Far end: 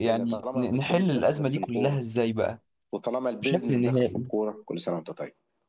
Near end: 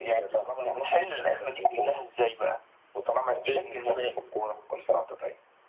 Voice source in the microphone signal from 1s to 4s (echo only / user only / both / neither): echo only